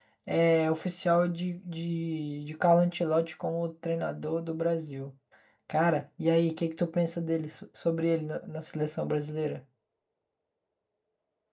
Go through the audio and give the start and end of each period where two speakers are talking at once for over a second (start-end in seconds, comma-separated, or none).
none